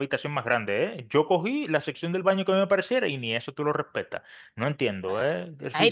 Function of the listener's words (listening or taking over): taking over